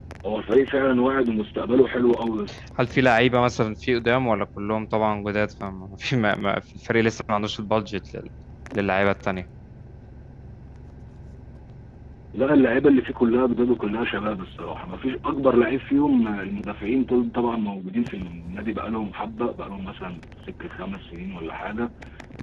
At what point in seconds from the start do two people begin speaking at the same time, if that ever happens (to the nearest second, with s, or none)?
none